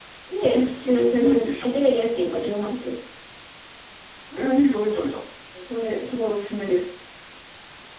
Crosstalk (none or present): present